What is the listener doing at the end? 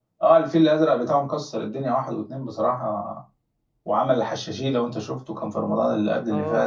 taking over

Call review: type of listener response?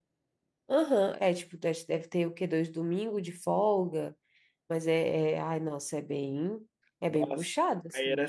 taking over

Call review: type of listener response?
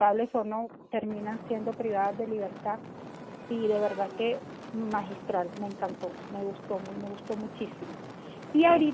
listening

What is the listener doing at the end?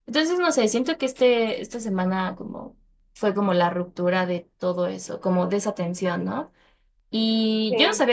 listening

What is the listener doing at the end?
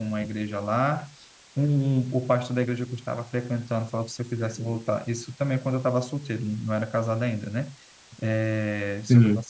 listening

